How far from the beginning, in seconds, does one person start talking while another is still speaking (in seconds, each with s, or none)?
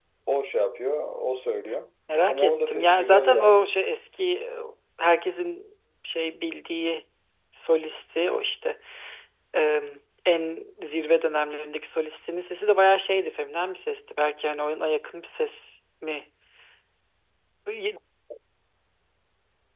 2.1 s